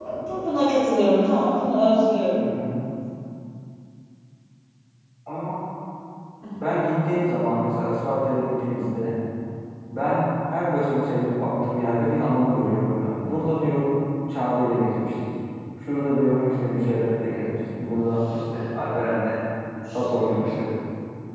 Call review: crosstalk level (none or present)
none